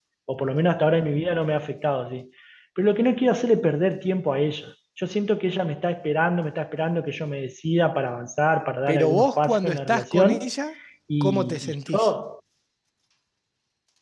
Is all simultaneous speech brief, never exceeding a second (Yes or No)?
No